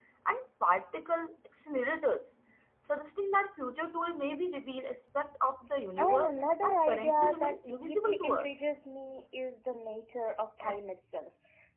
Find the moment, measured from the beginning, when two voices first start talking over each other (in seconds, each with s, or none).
6.0 s